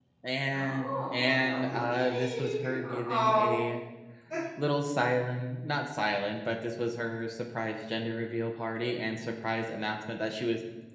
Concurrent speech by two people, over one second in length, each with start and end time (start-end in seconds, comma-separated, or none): 0.5-3.5